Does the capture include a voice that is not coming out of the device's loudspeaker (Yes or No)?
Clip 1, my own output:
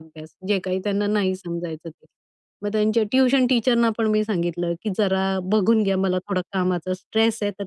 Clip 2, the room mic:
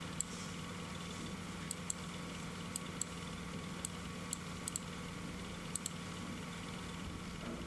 No